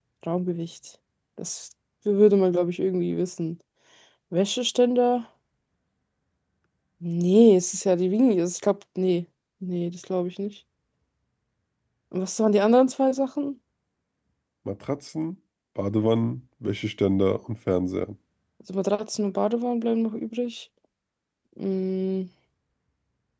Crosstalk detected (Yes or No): No